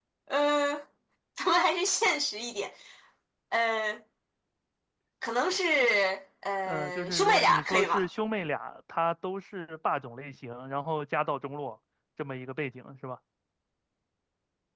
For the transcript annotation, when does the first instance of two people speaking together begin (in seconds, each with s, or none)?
6.7 s